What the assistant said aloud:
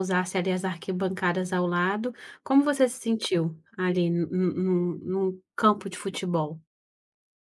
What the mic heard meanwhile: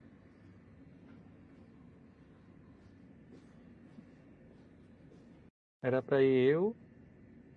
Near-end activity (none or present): present